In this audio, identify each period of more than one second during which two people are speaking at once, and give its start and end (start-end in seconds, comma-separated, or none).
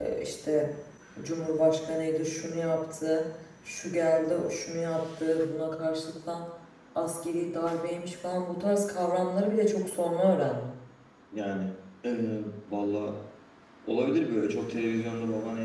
none